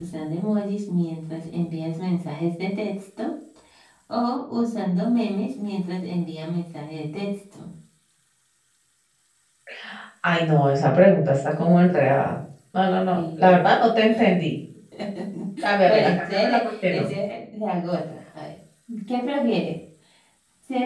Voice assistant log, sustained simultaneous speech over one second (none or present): present